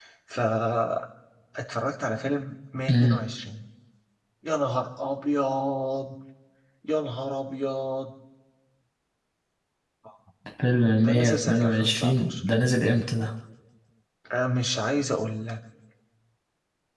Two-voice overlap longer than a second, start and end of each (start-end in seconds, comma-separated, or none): 11.0-12.3